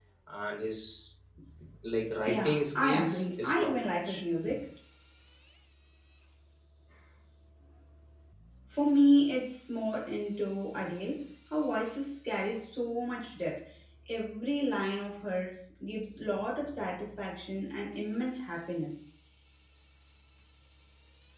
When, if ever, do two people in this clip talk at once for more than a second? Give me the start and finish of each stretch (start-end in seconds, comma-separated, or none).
2.3-4.2